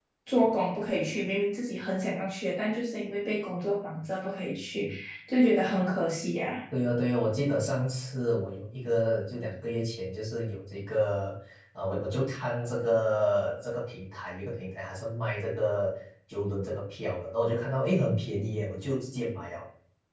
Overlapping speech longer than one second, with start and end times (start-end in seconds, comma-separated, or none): none